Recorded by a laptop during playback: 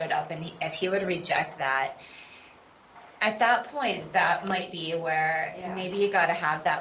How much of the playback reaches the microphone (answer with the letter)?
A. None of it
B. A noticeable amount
B